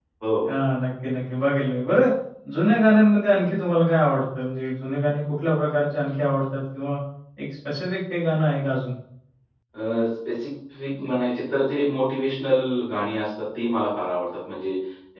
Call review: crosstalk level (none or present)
none